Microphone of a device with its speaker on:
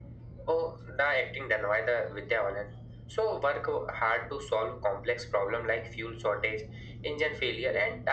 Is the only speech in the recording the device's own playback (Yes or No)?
Yes